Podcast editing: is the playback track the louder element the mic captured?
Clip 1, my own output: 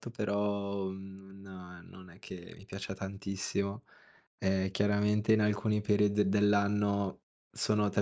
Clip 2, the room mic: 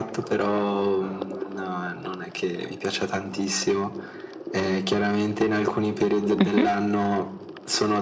No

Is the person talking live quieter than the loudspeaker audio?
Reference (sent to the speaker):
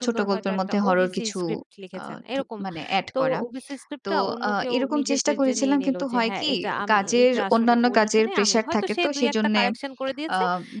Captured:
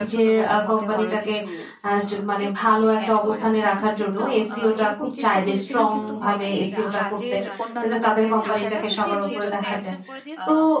No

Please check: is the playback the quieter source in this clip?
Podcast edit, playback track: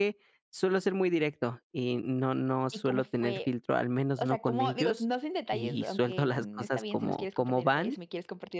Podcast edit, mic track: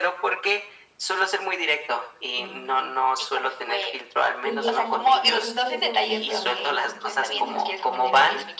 No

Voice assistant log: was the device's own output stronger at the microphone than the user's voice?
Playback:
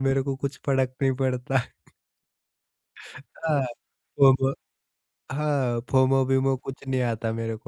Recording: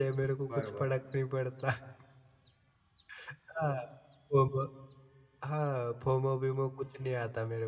Yes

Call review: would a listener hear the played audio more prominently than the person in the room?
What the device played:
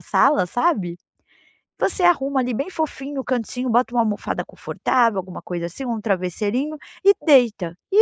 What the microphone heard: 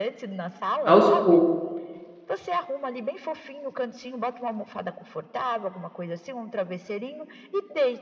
No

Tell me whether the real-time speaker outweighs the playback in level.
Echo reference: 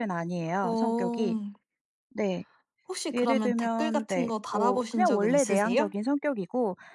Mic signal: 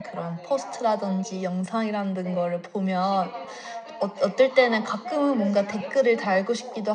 Yes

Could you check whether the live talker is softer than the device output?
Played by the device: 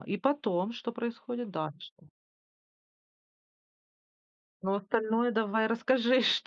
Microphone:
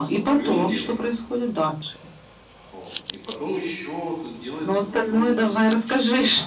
Yes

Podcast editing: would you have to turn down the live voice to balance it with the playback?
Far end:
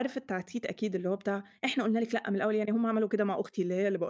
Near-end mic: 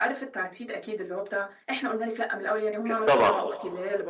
Yes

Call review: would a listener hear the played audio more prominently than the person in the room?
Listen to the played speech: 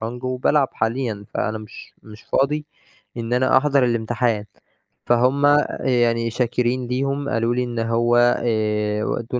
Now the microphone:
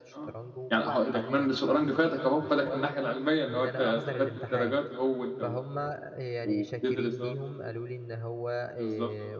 No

